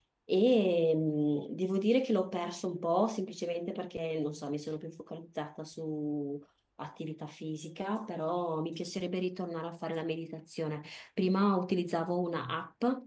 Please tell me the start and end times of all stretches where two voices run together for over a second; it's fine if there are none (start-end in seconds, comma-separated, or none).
none